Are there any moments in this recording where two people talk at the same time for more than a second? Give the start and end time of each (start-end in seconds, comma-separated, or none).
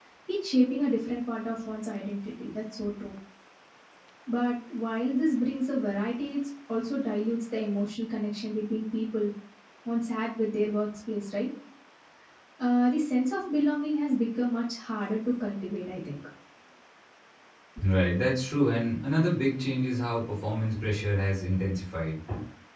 none